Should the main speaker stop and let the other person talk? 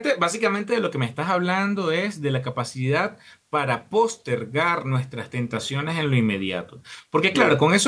No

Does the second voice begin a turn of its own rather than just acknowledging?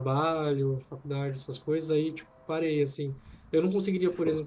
No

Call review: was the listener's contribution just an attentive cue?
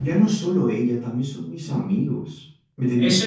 No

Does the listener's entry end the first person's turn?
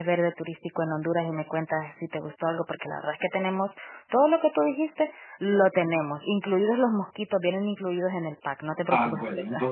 Yes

